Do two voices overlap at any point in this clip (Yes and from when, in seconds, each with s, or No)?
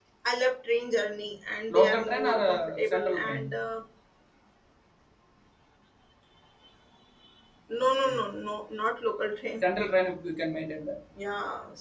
Yes, from 1.8 s